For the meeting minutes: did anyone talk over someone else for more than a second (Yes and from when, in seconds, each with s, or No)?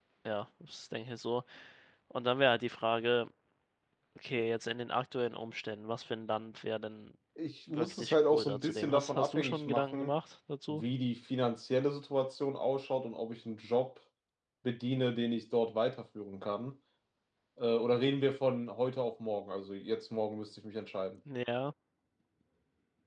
Yes, from 7.7 s